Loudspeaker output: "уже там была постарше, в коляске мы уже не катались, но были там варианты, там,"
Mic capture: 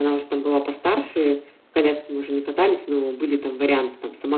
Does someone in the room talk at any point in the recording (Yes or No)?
No